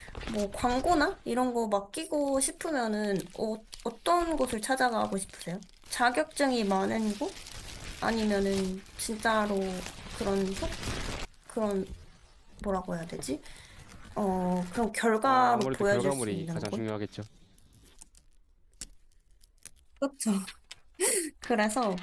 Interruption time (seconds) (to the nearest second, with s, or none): 15 s